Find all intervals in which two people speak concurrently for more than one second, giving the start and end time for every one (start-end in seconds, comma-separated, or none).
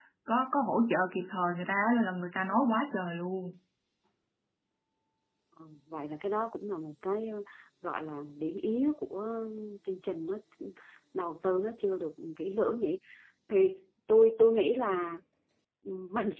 none